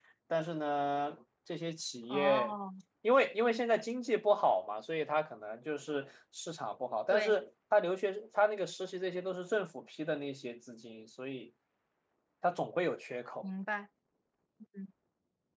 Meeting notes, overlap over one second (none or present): none